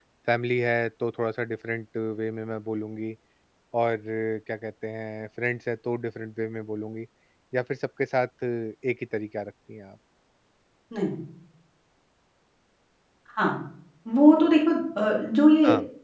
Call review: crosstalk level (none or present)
none